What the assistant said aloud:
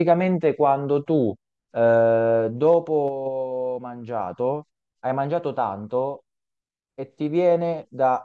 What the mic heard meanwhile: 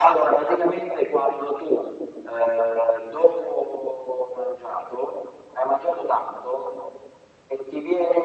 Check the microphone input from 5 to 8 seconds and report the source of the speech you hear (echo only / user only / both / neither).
echo only